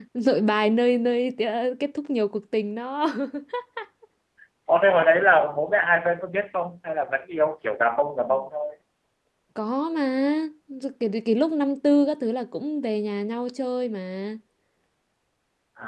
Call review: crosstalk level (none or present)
none